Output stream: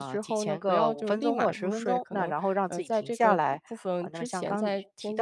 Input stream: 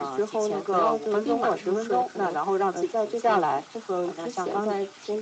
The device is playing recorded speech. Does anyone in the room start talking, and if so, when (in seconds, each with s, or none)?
none